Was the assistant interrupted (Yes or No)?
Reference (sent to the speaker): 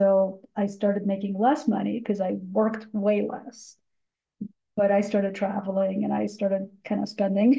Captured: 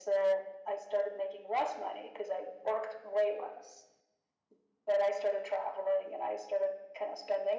No